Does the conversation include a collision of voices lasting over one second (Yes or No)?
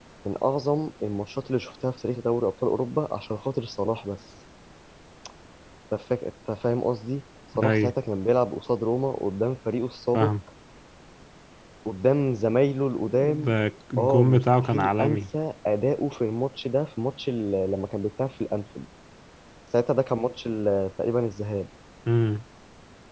Yes